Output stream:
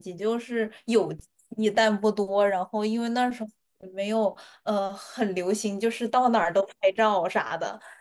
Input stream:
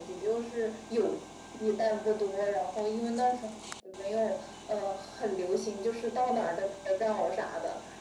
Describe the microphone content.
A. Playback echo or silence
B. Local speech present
A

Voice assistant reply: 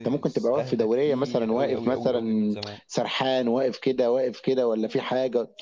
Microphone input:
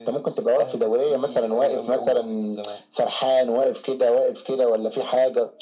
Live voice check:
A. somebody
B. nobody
B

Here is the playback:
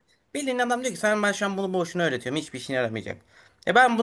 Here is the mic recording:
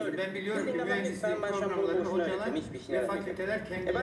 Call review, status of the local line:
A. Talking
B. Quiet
A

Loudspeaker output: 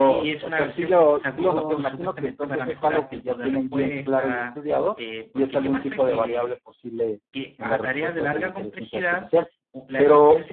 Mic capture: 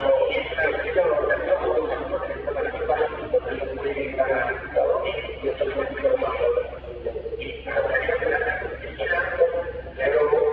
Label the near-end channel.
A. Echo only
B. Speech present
A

